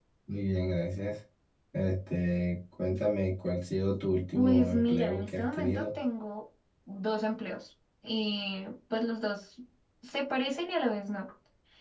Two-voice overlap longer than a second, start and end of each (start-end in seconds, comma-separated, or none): 4.3-6.0